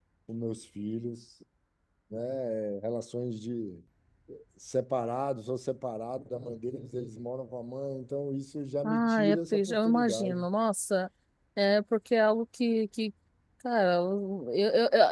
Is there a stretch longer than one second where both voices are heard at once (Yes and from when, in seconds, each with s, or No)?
Yes, from 8.8 s